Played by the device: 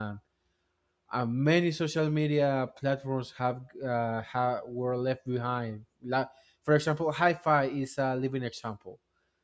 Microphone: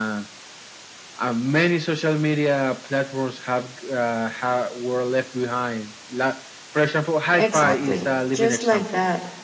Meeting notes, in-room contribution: present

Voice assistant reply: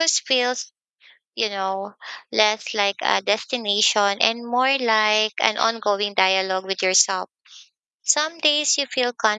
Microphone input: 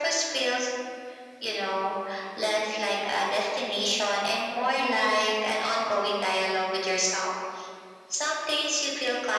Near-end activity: none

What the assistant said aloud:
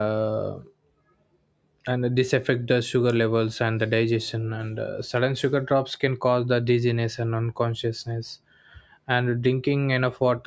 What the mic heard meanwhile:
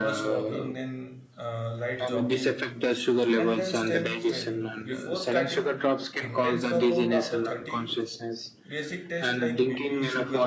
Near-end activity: present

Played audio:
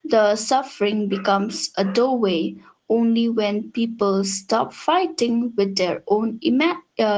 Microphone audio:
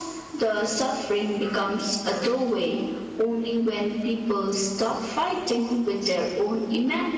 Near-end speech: none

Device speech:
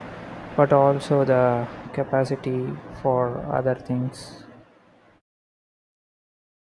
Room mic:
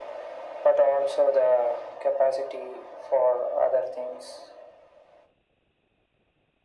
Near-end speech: none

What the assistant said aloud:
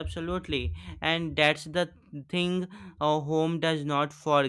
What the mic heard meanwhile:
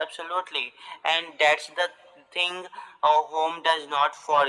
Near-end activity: none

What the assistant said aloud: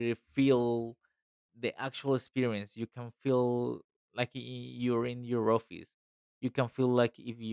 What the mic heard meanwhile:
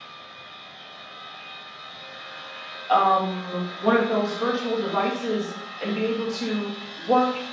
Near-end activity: present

